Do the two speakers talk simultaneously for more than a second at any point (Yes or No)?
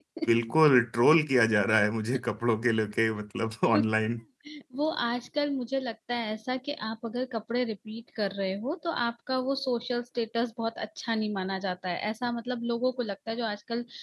No